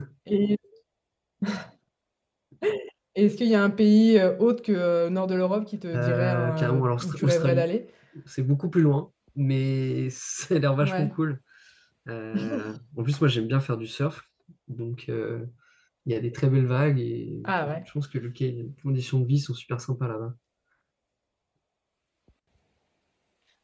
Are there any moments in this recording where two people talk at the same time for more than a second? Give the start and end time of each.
5.9-7.7

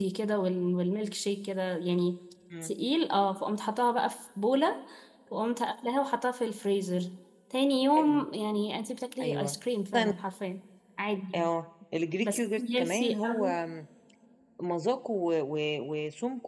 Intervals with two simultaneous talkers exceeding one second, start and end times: 12.2-13.5

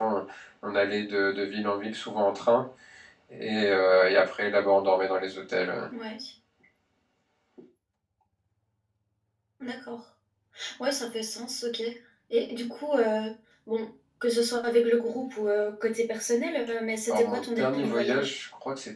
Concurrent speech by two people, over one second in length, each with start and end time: 17.1-18.3

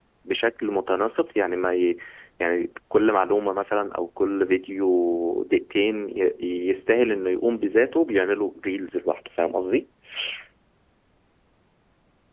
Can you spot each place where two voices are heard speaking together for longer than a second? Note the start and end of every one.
none

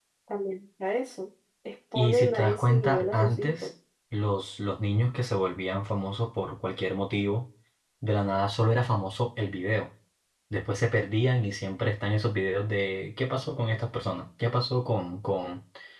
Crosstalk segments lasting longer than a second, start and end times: 1.9-3.7

